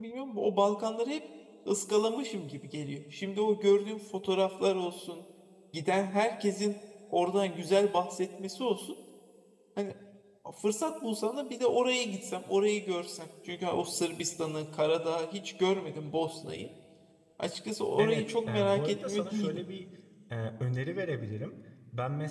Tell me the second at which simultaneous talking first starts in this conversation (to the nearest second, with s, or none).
18 s